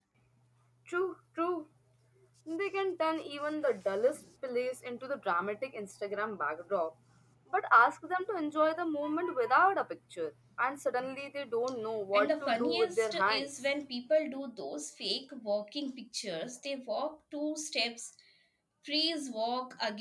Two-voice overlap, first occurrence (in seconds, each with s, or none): 12.1 s